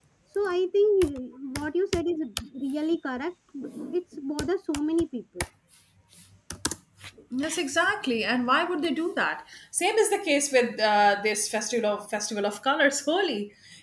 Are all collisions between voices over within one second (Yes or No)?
Yes